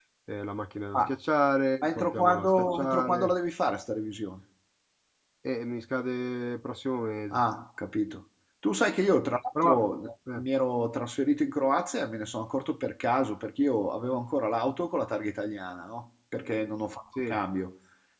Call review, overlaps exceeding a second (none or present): present